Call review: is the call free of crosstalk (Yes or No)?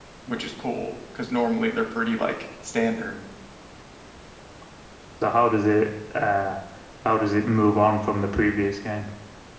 Yes